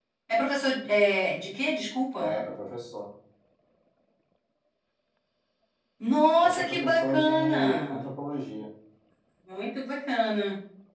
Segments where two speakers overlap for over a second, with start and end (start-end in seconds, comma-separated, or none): 6.4-8.1